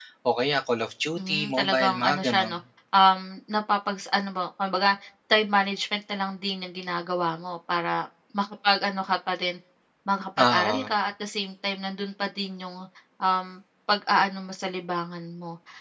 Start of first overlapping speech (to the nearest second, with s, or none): 1 s